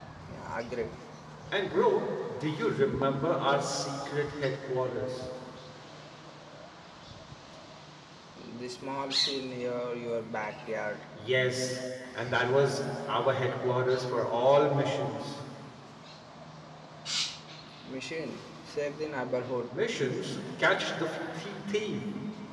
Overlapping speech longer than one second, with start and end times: none

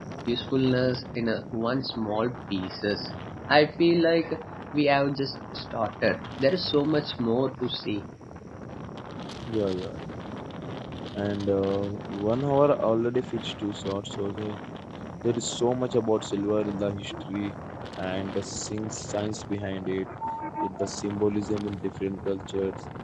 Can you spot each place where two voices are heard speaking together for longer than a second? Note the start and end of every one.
none

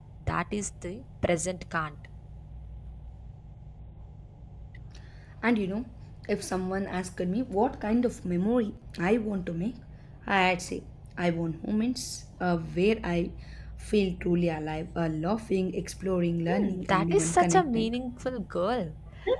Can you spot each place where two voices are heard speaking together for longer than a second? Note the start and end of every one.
16.5-17.9

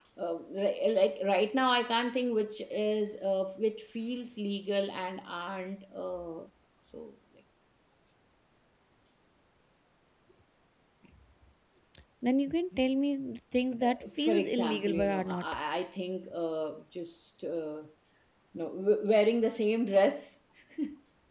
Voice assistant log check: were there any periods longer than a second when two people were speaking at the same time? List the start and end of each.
13.8-15.4

